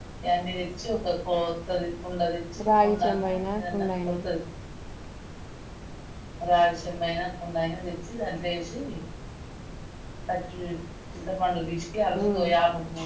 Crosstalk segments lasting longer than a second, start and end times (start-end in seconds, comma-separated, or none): 2.8-4.1